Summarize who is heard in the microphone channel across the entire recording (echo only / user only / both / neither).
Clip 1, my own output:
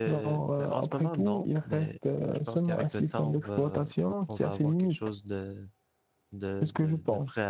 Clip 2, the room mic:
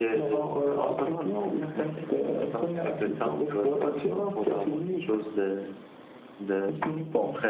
echo only